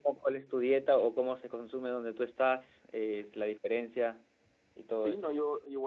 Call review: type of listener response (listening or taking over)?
taking over